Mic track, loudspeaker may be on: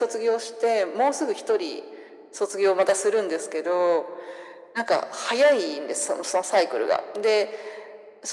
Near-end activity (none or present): none